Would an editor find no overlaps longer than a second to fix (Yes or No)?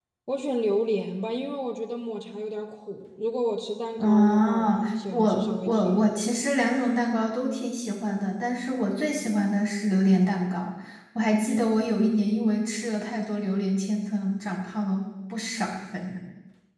No